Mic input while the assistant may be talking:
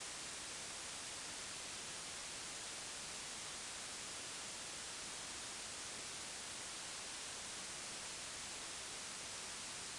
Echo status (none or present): none